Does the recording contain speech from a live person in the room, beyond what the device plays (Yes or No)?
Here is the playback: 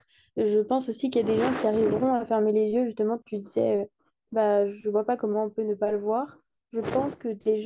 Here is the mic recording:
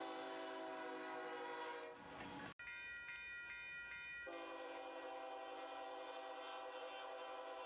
No